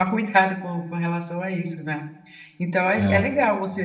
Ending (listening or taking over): listening